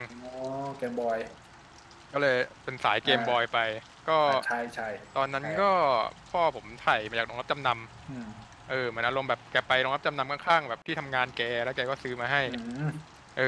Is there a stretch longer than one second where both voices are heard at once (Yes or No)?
No